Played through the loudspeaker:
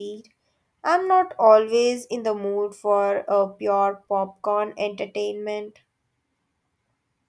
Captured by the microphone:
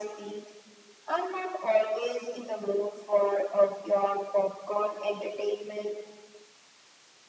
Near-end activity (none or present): none